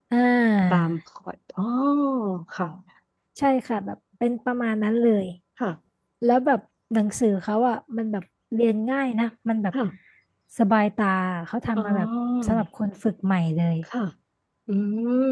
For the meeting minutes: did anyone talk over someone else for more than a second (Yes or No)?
No